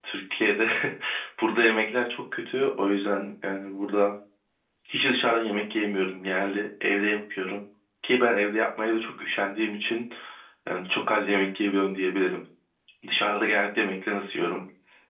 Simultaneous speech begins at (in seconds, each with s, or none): none